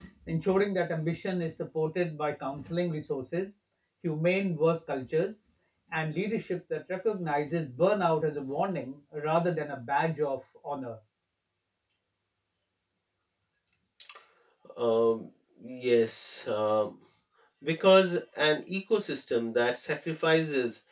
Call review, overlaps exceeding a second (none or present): none